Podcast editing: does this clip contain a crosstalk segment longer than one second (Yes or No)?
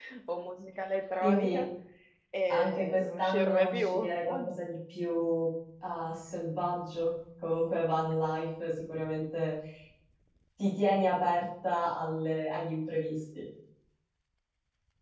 Yes